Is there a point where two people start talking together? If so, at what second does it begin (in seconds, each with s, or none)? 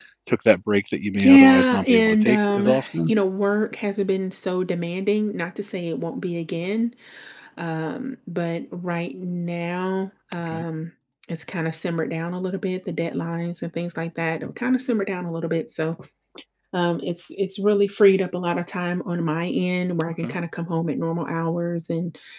1.2 s